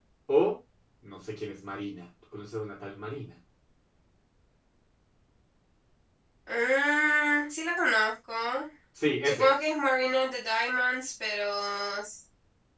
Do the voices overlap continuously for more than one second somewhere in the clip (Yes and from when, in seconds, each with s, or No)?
No